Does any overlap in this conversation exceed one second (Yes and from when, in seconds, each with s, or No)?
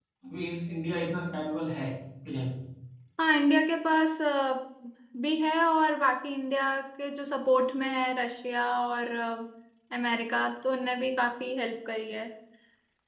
No